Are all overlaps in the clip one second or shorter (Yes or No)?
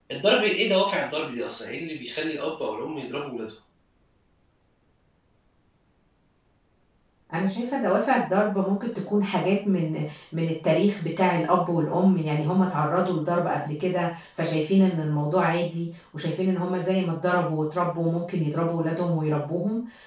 Yes